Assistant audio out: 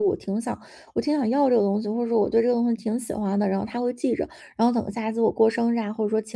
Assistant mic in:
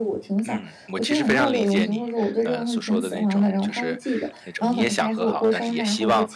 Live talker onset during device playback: 0 s

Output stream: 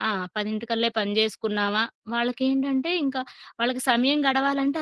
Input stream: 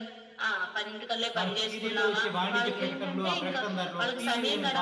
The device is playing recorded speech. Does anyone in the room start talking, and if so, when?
1 s

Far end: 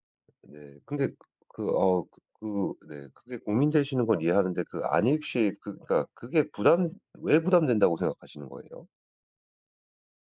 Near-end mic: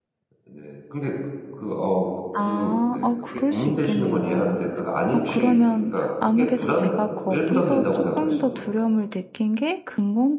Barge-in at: 2 s

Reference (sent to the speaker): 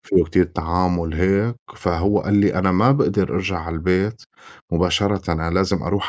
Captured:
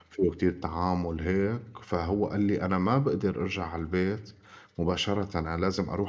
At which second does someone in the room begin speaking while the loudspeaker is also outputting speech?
none

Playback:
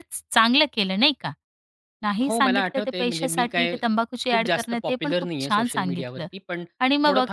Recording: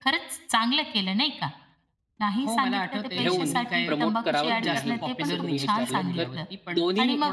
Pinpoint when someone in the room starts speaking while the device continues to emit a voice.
3 s

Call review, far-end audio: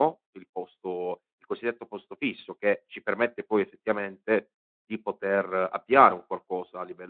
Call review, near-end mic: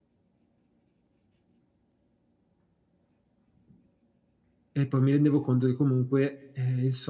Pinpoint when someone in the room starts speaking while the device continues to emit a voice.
5 s

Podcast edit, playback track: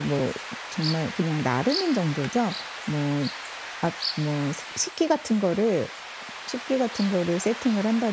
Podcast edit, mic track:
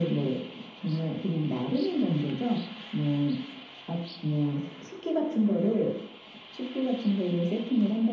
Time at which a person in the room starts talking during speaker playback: none

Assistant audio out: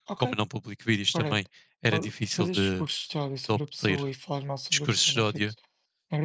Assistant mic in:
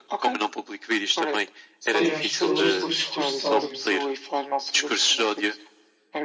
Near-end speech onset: 2 s

